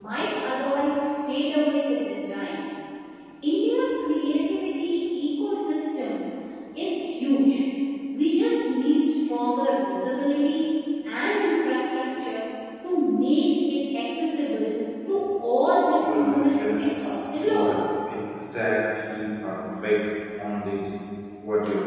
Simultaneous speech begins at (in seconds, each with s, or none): 16.0 s